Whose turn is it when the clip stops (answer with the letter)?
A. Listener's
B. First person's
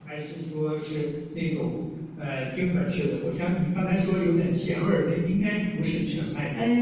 A